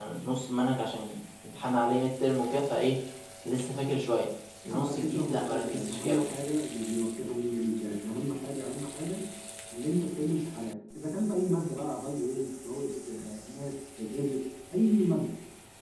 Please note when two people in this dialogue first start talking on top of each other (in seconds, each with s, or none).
4.7 s